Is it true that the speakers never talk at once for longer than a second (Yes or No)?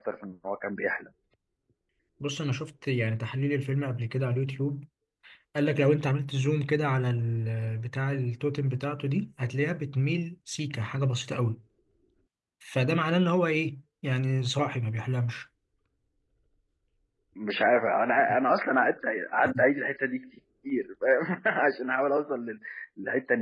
Yes